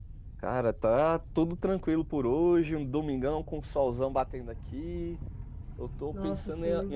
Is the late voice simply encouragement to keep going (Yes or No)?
Yes